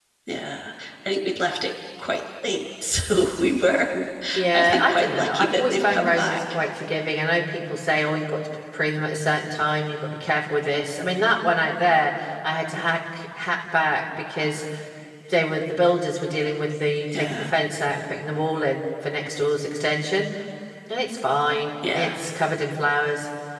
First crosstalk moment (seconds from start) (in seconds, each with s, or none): 4.5 s